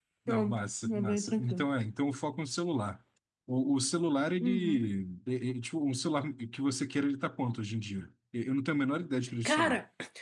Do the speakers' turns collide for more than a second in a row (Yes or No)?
Yes